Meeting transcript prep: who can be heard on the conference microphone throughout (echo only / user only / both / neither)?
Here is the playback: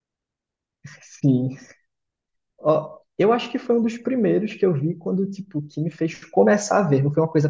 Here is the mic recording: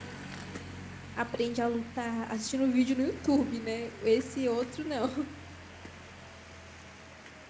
user only